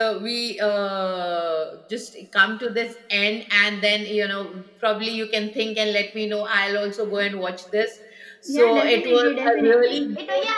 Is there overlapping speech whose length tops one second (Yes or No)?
Yes